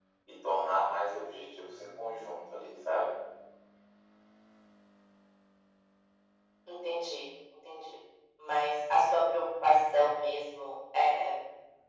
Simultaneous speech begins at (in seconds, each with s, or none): none